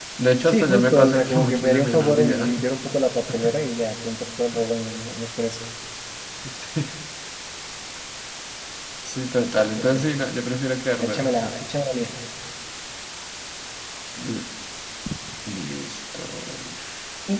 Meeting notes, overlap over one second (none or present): present